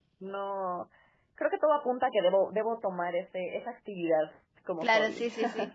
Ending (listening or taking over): taking over